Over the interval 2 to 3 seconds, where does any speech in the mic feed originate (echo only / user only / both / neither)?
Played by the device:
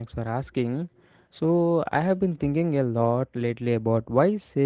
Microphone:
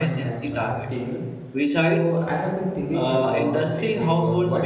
both